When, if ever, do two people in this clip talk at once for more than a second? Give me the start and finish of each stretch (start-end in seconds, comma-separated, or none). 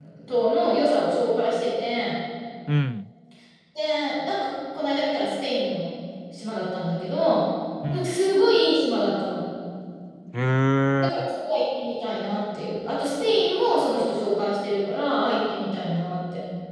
none